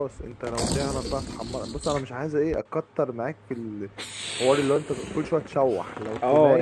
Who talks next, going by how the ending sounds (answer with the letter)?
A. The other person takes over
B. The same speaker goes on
A